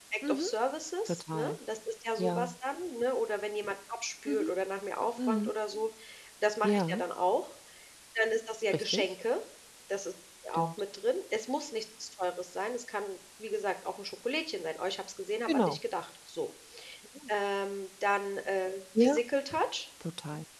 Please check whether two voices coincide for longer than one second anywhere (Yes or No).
No